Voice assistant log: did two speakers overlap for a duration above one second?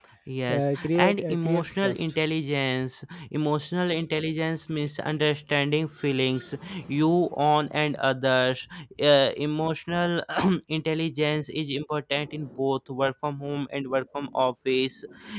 Yes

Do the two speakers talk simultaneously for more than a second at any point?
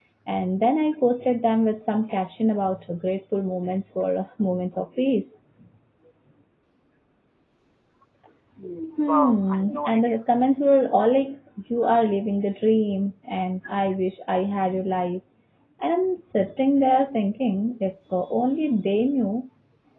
Yes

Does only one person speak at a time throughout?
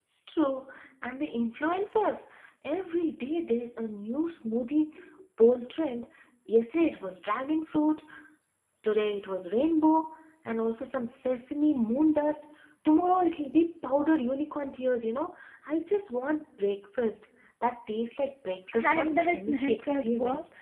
No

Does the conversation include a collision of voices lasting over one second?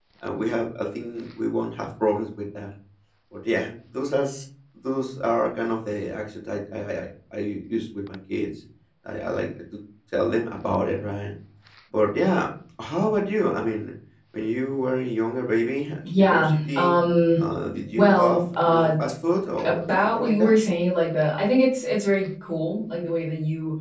Yes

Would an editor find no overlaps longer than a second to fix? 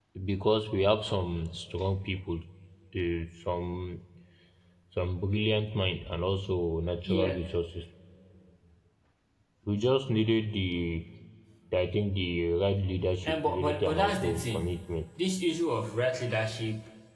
No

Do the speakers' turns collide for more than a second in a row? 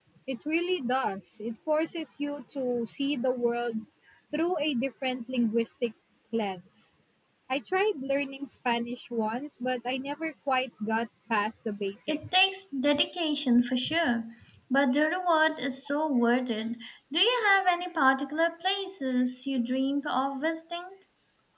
No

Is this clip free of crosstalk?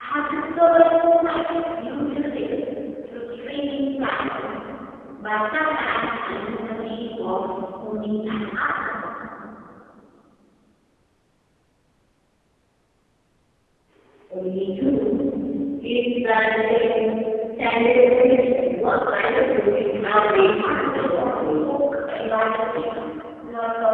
No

